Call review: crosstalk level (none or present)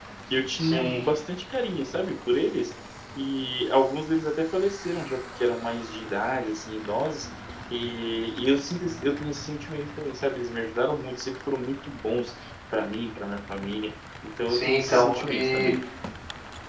present